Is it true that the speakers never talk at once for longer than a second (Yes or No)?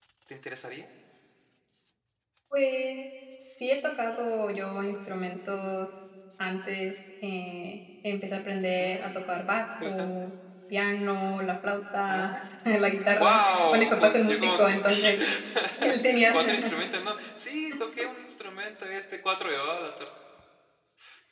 No